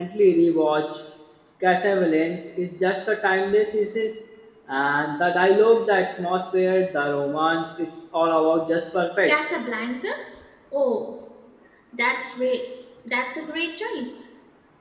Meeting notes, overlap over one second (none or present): none